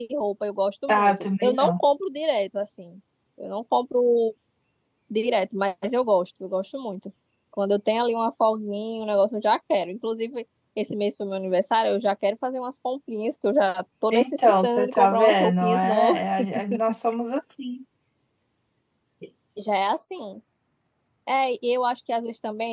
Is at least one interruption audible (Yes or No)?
Yes